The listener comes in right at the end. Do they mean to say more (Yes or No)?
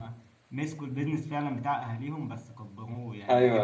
Yes